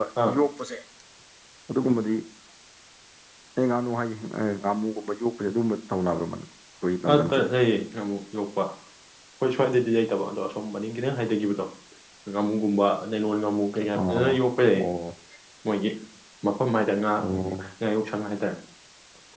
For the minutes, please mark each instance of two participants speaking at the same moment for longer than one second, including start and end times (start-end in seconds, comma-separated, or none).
none